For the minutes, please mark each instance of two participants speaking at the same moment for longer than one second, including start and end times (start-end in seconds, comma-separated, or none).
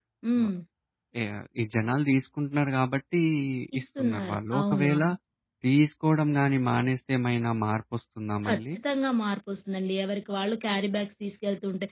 3.8-5.0